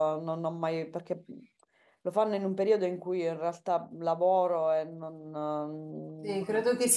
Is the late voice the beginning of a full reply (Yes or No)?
Yes